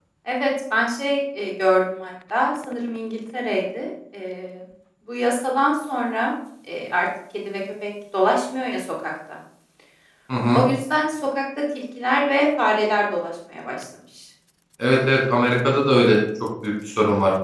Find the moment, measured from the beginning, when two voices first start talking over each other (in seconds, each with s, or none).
none